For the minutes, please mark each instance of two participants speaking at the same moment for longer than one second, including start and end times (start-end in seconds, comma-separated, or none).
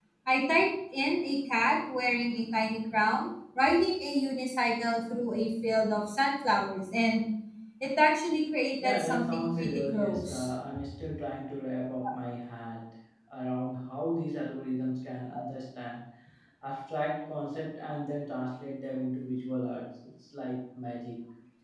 8.8-10.5